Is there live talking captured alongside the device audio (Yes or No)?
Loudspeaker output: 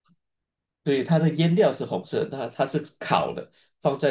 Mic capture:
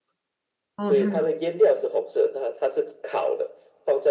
Yes